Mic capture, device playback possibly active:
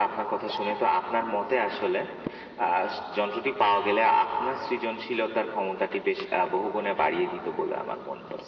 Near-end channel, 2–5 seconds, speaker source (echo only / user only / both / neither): echo only